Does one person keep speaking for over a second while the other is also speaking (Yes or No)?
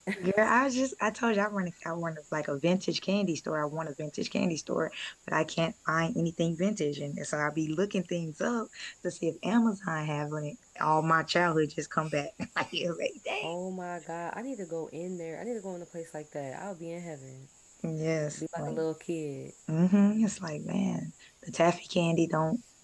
No